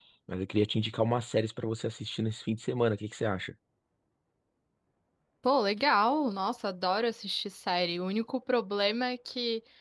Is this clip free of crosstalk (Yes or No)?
Yes